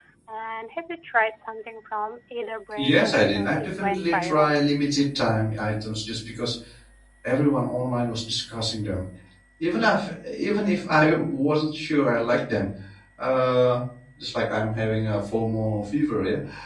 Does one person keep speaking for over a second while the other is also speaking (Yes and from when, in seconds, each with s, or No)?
Yes, from 2.8 s